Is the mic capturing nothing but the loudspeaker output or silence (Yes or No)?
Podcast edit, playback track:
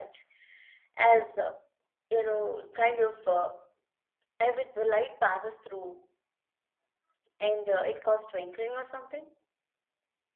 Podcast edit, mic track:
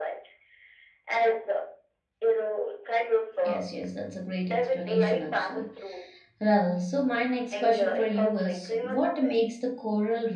No